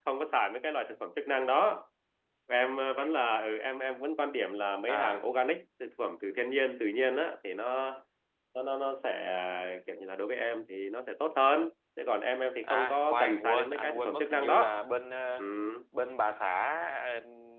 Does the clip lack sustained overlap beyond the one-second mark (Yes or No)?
No